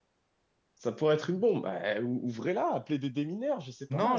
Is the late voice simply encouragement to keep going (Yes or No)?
No